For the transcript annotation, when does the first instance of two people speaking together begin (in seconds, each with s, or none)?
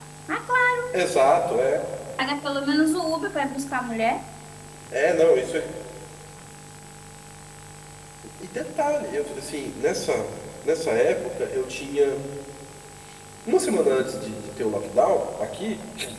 none